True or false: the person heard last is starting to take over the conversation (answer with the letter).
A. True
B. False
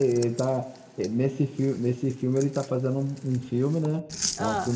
B